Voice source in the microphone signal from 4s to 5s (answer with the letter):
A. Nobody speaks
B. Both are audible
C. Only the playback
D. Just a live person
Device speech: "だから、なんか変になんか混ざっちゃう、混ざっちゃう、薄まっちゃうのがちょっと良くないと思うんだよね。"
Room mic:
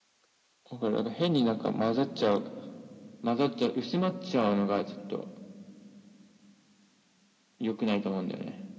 C